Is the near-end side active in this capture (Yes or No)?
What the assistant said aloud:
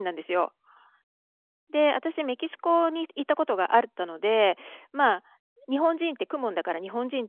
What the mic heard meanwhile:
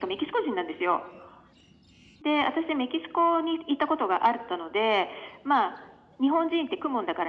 No